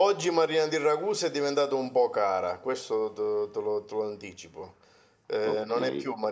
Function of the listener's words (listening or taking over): listening